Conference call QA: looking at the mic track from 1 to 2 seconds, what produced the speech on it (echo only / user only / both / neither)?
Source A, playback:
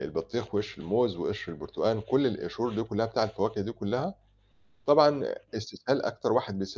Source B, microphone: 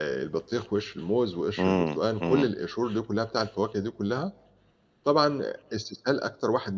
both